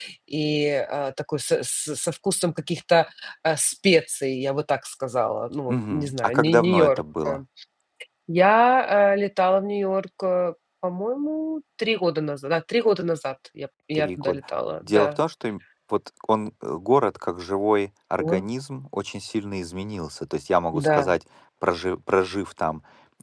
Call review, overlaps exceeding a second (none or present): present